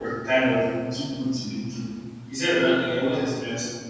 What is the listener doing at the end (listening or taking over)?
listening